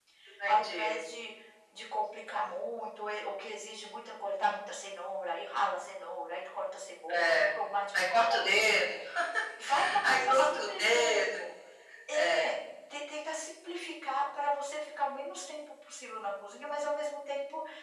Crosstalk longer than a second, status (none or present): present